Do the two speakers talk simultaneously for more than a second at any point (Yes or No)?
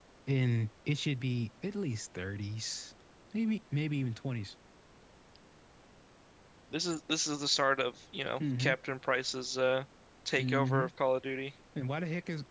No